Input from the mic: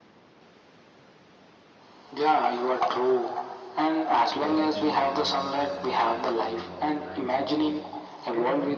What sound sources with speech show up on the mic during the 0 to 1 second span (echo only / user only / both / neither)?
neither